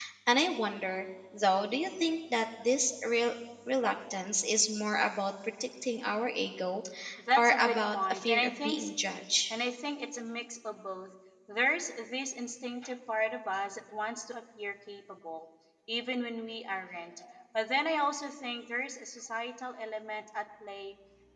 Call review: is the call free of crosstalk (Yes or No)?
No